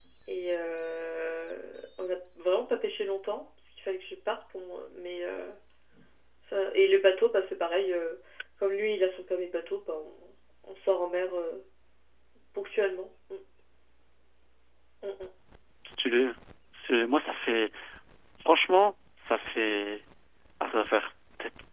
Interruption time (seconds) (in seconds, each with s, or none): none